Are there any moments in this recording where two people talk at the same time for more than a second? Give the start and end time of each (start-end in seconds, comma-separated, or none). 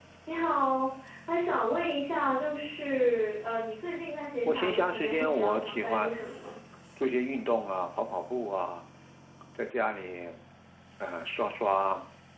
4.5-6.1